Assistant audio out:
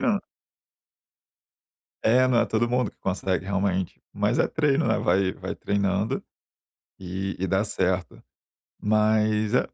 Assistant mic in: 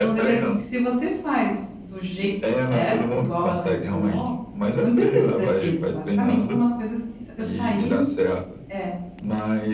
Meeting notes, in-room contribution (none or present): present